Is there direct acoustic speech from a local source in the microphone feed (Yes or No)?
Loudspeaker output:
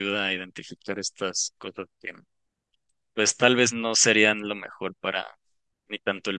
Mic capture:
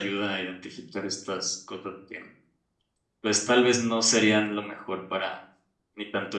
No